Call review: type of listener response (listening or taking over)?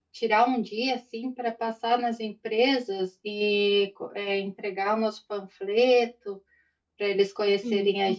listening